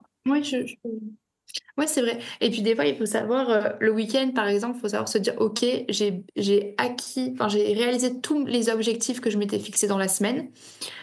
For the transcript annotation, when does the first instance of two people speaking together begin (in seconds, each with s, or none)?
none